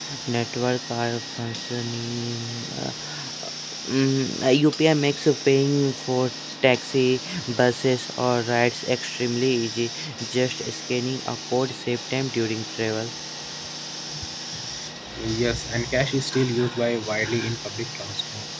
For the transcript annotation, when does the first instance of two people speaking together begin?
none

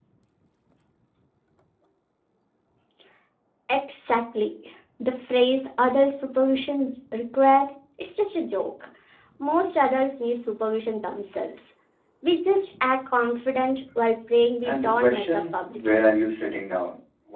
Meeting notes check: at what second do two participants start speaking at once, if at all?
14.6 s

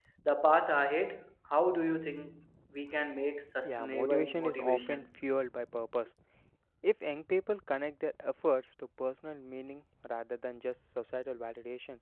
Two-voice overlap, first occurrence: 3.6 s

